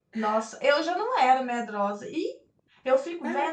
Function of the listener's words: listening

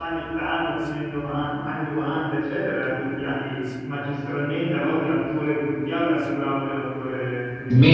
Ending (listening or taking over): taking over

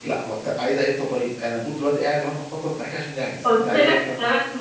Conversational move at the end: taking over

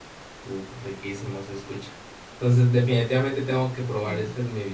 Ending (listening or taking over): listening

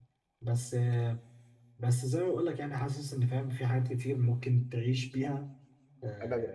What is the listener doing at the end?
taking over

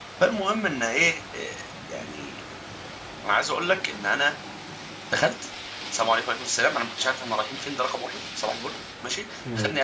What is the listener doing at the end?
listening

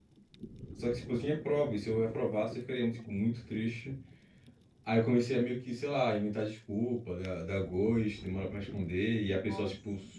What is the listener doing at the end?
listening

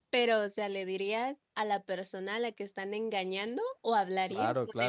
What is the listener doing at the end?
taking over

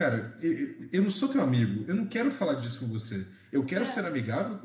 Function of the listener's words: listening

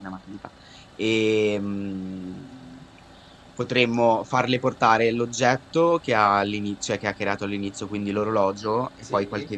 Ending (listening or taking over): listening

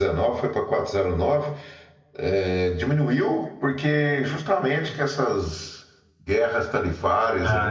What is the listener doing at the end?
listening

